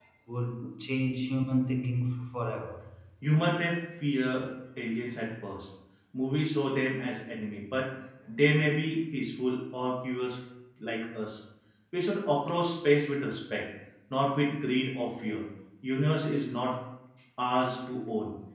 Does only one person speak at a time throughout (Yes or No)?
Yes